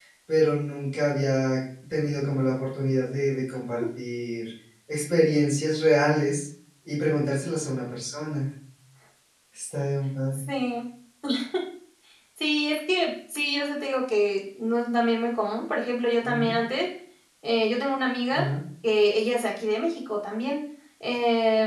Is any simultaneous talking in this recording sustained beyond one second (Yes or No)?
No